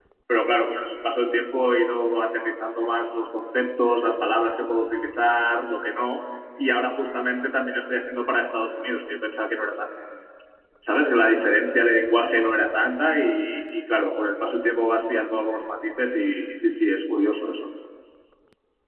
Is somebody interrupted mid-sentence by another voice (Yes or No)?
No